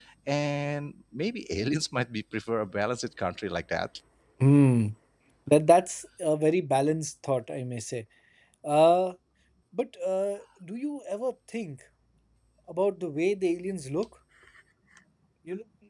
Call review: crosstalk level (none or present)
none